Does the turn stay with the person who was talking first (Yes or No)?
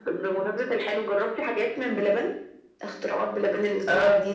No